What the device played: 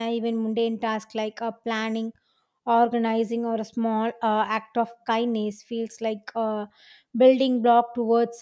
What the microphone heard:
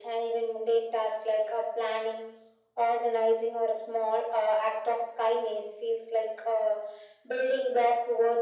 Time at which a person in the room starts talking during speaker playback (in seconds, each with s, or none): none